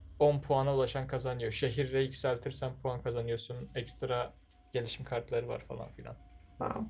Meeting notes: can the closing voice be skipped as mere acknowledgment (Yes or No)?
No